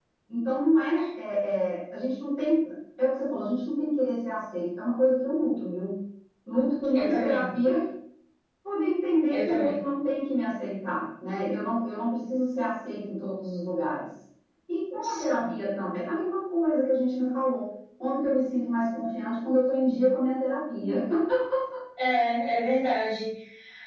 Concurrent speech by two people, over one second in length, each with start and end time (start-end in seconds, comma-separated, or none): none